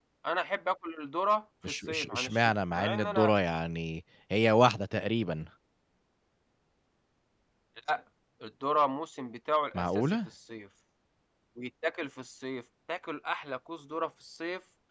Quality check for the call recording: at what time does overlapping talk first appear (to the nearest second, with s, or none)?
2 s